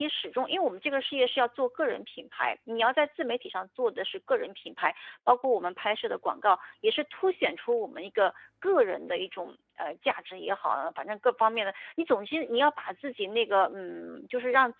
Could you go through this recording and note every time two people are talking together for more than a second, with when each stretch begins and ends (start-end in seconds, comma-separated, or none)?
none